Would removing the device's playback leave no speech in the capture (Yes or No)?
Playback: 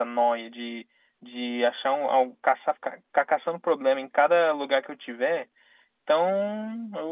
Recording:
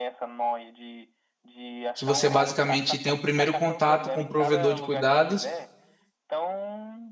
No